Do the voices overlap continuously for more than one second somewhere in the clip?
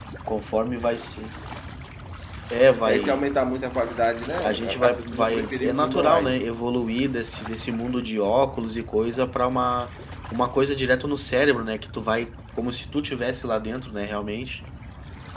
Yes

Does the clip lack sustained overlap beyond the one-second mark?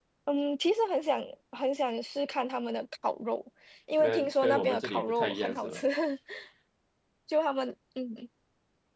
No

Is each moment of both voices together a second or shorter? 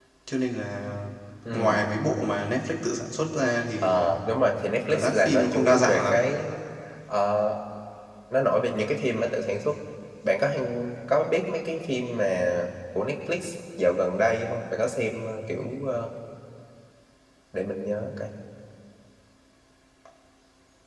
No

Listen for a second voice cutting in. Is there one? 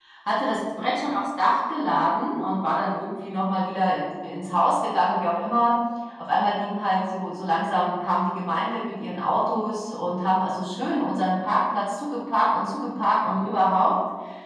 No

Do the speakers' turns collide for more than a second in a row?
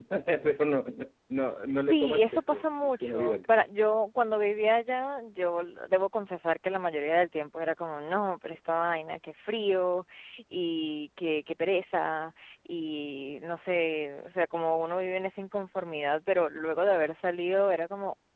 Yes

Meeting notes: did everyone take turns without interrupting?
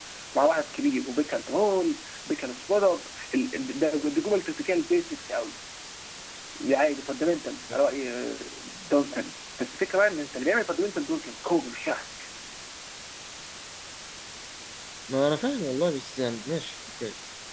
Yes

